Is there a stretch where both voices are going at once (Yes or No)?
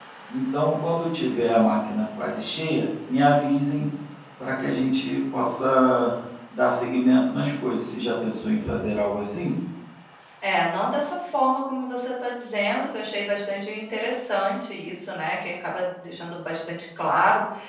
No